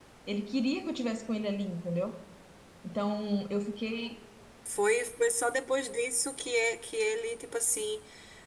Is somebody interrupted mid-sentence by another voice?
No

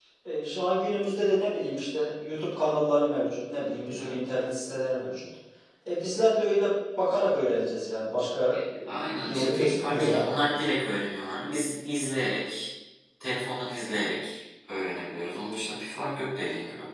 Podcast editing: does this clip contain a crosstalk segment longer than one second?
Yes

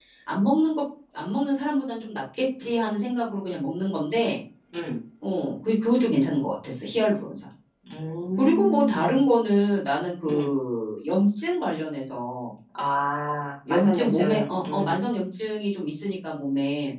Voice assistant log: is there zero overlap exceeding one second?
No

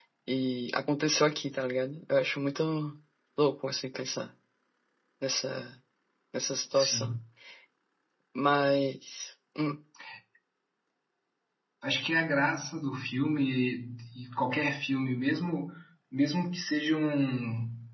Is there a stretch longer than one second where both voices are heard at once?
No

